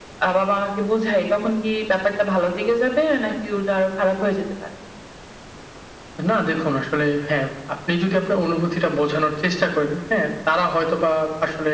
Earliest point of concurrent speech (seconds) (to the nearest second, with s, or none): none